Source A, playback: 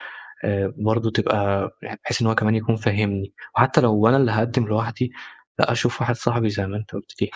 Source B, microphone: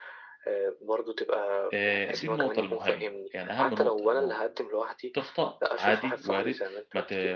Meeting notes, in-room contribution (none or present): present